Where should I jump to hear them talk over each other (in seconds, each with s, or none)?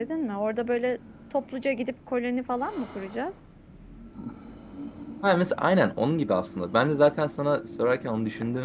none